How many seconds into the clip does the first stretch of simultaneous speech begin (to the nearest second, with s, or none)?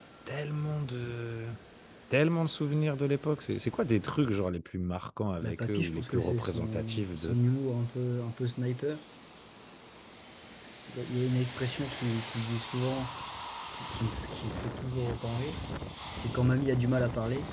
5 s